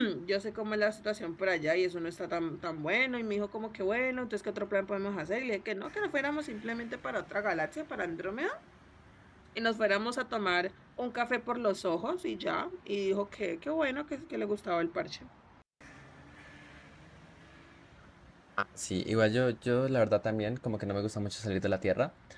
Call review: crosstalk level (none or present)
none